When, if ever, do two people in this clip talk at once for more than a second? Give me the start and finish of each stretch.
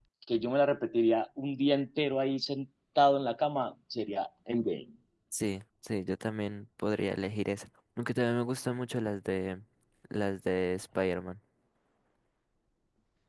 none

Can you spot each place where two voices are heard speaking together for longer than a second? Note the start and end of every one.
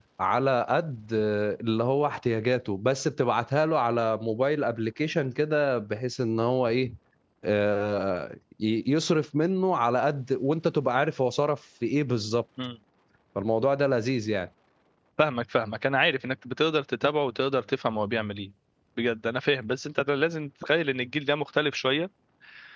none

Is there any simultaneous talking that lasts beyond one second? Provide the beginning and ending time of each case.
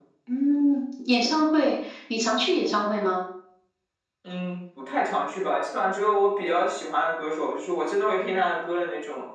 none

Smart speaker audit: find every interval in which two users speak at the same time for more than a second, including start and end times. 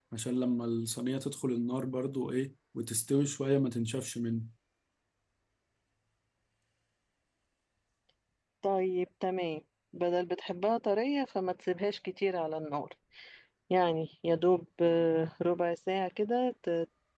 none

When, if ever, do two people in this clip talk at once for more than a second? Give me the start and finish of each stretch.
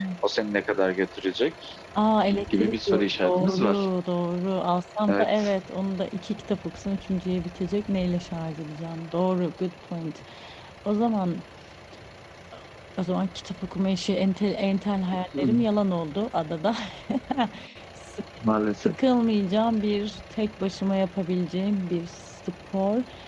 2.5-3.9

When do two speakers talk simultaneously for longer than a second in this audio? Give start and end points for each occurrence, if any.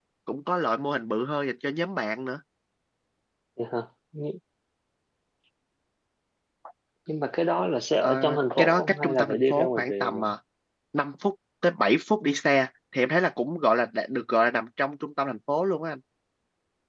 8.6-10.3

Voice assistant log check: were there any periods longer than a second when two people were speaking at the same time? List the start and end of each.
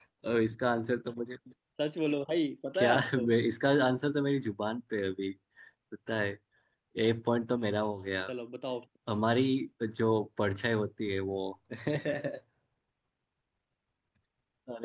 none

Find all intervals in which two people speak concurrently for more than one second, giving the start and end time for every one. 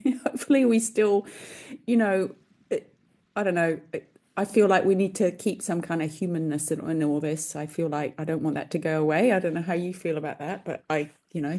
none

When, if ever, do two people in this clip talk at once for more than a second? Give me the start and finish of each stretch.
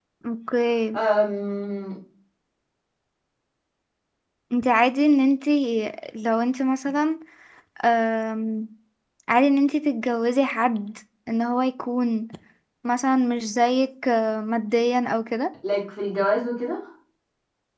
none

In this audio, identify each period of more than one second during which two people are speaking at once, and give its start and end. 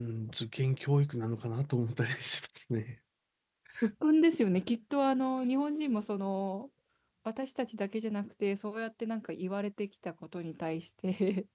none

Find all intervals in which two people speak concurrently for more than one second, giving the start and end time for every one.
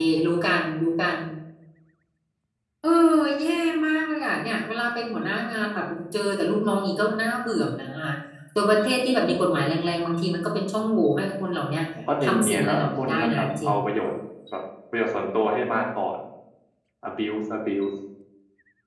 12.2-13.7

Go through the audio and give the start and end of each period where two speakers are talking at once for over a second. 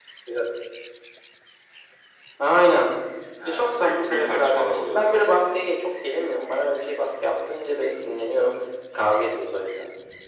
3.5-5.6

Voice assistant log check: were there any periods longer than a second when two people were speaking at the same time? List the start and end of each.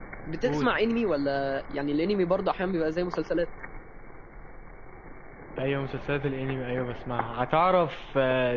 none

